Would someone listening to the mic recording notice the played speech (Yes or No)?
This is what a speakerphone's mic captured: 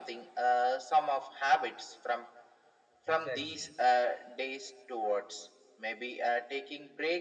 Yes